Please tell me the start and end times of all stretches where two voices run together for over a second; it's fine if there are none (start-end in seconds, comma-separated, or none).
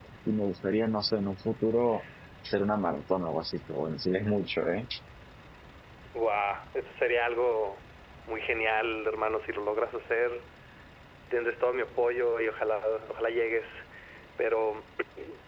none